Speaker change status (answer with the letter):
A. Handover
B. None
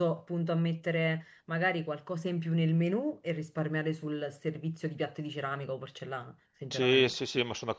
A